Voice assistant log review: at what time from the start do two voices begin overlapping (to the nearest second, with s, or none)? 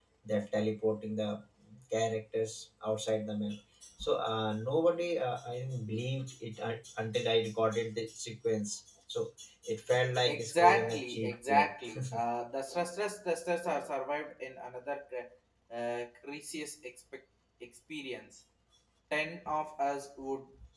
10 s